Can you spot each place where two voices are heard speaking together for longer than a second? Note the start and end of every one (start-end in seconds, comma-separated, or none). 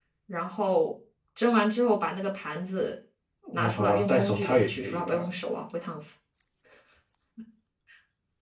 3.5-5.1